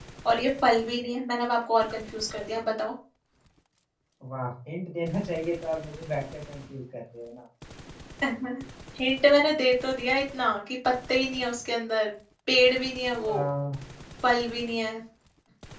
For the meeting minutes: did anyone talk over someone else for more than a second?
No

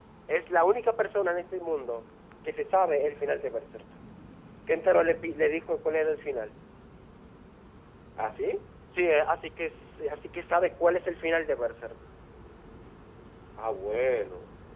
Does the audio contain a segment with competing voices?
No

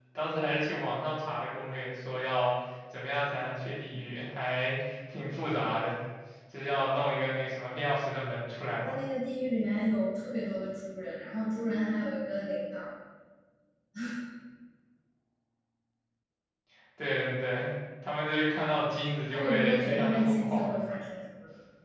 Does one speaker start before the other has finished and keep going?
Yes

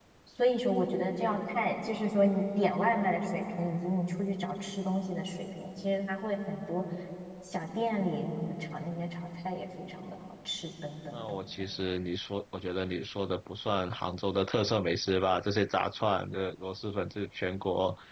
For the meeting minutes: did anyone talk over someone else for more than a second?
No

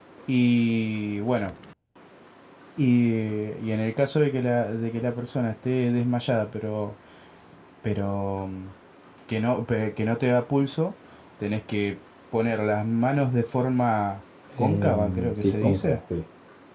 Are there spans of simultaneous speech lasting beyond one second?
Yes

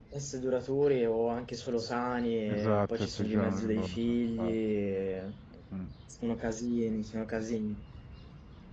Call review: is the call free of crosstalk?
No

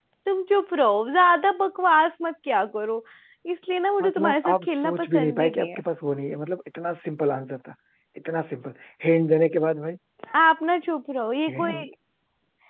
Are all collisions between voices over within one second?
No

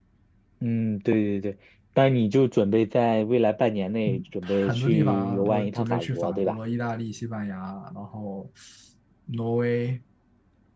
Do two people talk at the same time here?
Yes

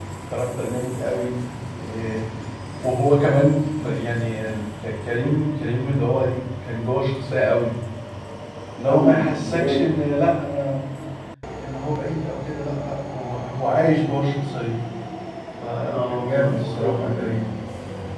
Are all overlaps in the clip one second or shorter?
No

